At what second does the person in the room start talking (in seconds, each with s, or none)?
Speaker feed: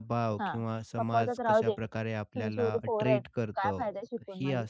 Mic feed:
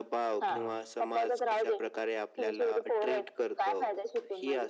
0.4 s